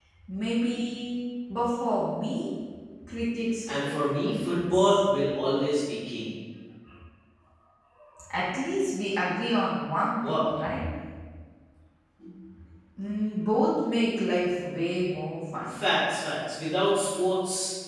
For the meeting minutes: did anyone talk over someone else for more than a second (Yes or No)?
Yes